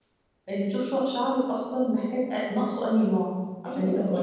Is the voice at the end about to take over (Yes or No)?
Yes